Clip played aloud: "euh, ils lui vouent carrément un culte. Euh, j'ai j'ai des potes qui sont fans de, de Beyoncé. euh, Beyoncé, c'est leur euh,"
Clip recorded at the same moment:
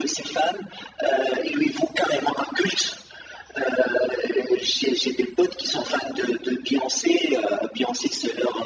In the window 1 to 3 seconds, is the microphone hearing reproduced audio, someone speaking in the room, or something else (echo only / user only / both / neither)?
echo only